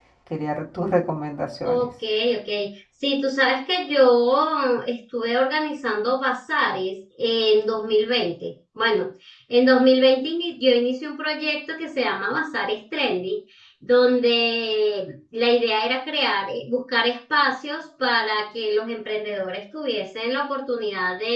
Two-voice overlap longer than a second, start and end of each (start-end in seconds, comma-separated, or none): none